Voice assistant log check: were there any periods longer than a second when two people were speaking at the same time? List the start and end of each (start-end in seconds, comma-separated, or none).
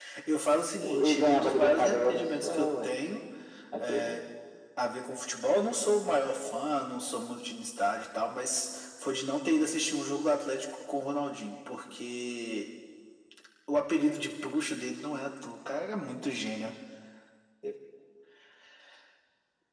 1.0-2.9